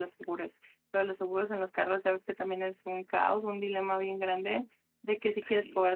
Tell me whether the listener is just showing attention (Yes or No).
Yes